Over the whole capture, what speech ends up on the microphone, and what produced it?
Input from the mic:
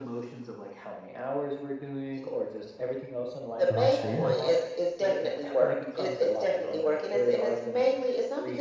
both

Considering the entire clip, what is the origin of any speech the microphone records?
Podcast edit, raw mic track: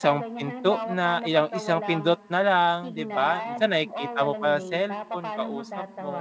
both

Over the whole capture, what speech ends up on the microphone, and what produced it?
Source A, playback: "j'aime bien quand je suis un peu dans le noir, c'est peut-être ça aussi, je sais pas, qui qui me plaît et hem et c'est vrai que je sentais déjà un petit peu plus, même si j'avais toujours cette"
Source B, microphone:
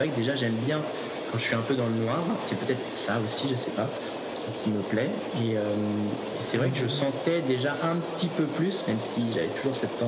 both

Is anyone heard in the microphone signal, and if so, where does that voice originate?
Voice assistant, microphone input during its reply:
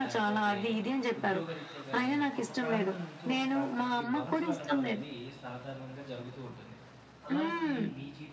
both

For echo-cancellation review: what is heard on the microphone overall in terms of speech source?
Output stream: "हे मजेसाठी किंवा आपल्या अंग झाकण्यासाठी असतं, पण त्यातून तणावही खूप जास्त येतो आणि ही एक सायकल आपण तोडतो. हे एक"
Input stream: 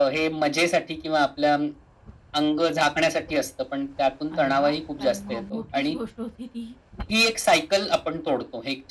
both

